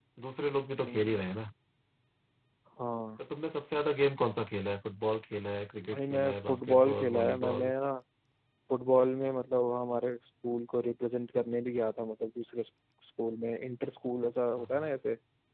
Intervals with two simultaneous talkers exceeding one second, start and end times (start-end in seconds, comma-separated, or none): 5.9-7.7